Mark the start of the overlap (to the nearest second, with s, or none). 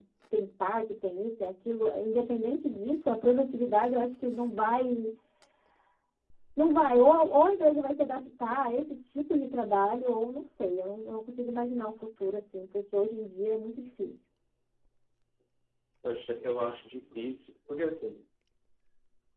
none